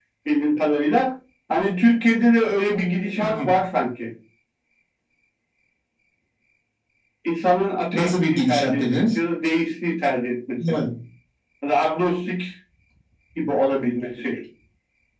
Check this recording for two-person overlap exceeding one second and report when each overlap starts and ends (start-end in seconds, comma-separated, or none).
7.9-9.2